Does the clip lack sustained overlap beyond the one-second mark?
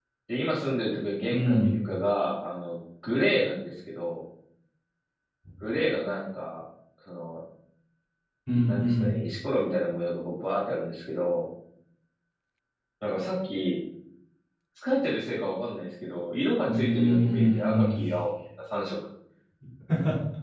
No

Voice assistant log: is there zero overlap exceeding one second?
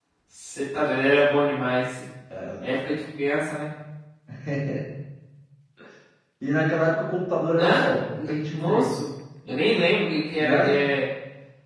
No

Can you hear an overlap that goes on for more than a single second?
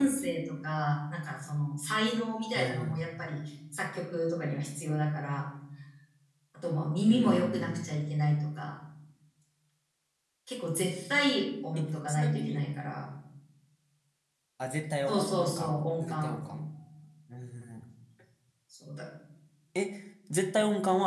Yes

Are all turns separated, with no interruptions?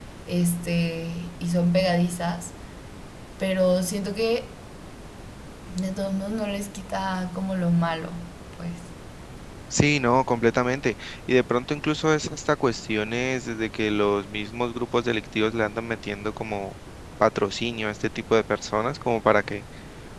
Yes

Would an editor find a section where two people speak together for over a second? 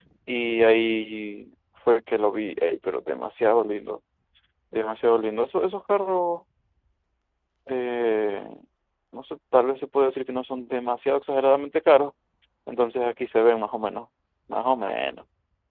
No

